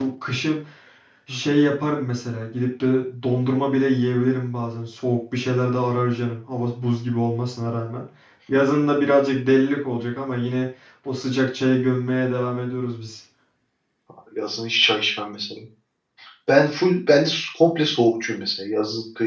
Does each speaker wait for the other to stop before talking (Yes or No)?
Yes